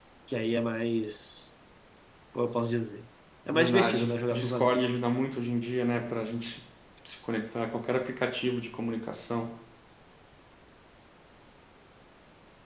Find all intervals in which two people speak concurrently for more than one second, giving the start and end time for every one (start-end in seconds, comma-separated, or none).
3.5-4.9